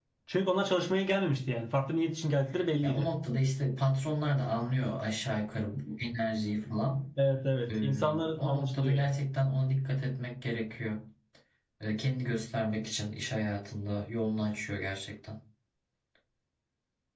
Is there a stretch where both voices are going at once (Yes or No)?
Yes